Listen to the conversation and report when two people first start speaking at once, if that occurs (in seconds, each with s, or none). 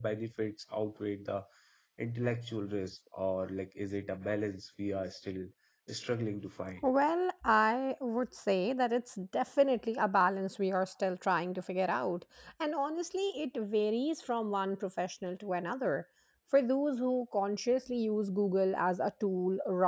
none